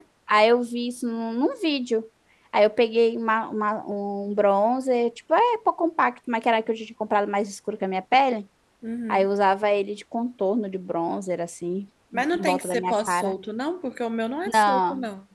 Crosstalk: present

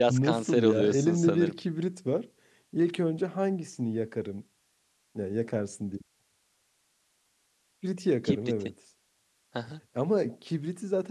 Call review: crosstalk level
present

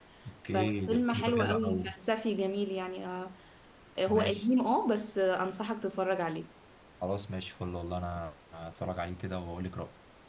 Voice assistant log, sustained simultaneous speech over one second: present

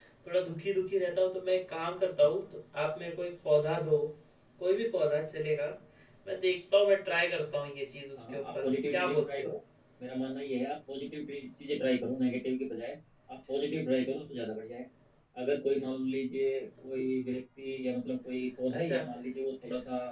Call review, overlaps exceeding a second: present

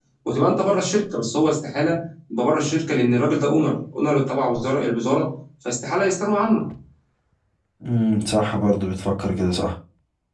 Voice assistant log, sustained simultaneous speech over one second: none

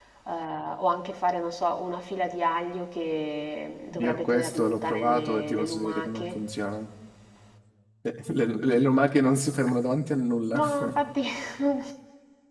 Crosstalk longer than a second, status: present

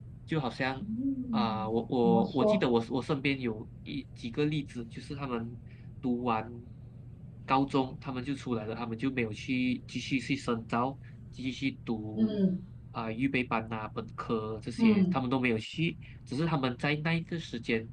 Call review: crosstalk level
present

